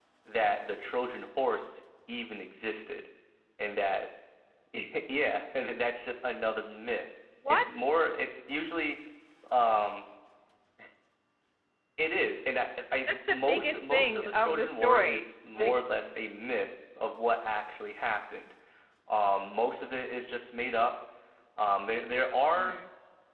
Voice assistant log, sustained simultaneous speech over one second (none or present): present